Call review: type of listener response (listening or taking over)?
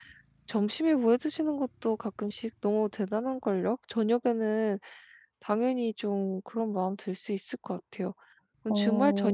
listening